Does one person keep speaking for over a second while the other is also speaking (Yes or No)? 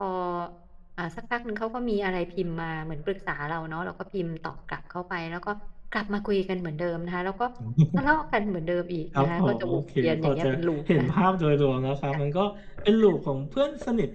Yes